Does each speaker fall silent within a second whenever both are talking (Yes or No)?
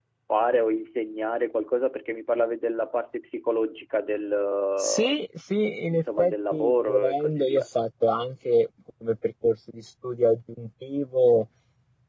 No